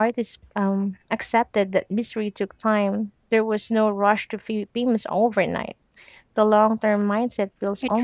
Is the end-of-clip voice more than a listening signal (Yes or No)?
Yes